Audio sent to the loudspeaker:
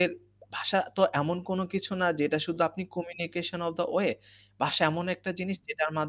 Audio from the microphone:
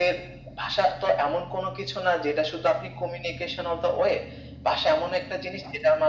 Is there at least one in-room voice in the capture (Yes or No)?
No